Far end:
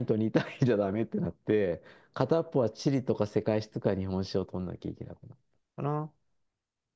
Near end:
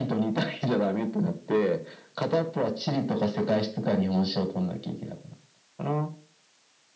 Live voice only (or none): none